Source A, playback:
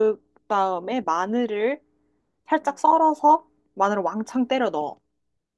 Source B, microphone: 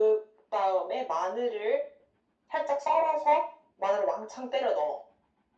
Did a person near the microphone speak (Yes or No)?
No